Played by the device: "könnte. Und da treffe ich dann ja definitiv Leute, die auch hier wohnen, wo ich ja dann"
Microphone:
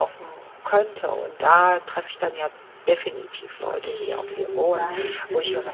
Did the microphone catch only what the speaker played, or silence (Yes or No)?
No